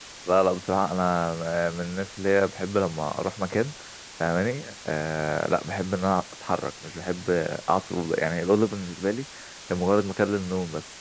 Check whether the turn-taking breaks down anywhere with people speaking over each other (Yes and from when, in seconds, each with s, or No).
No